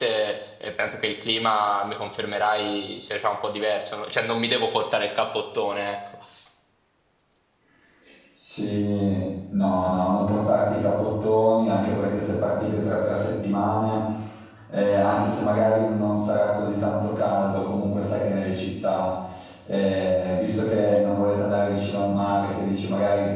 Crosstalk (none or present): none